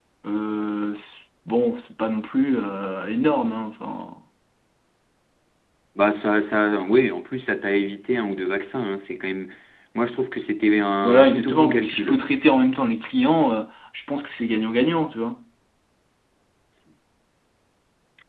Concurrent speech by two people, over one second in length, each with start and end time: 11.0-12.3

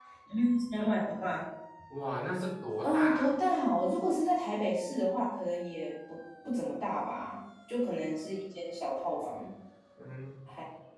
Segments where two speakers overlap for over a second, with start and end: none

